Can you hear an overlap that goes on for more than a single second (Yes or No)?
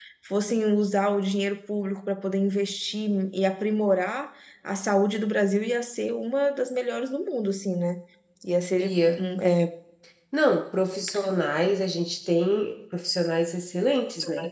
No